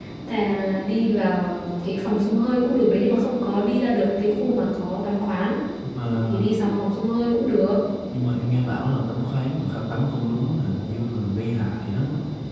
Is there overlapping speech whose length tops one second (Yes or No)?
No